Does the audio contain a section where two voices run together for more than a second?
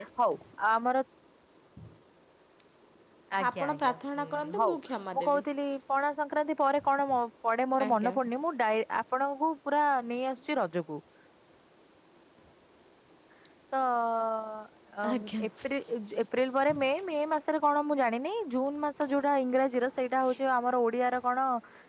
Yes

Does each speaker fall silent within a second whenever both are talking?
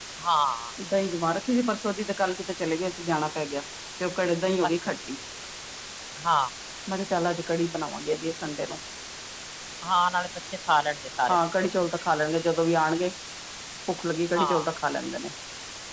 Yes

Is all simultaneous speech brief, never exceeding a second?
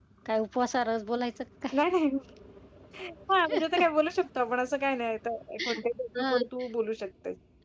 Yes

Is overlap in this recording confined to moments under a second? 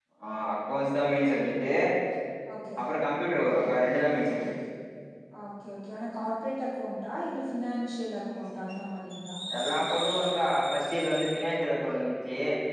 Yes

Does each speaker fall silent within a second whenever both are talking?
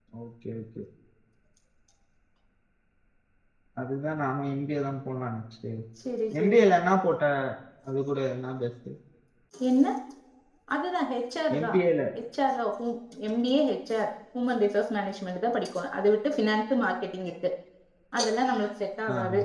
Yes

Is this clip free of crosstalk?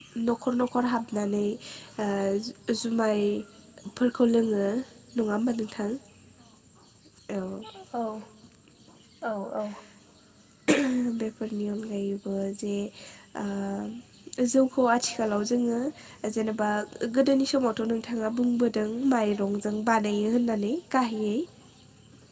Yes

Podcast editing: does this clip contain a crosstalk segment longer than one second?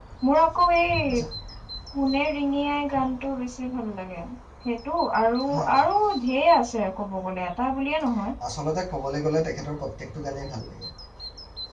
No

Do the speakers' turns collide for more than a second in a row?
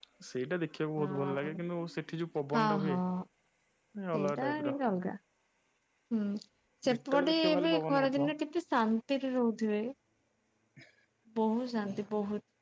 Yes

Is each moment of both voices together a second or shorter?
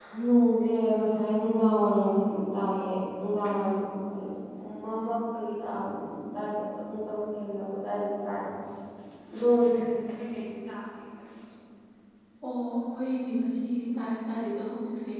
Yes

